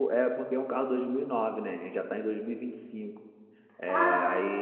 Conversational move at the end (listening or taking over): taking over